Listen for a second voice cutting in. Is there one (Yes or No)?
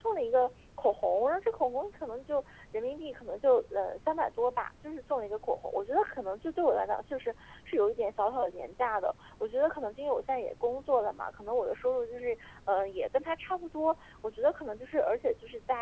No